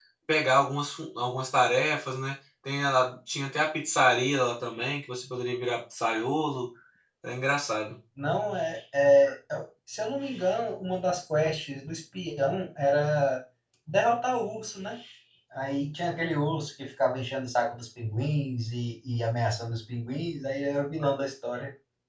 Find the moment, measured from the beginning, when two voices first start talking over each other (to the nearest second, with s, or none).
none